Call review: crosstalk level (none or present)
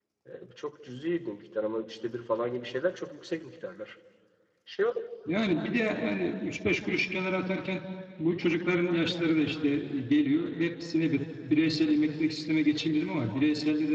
none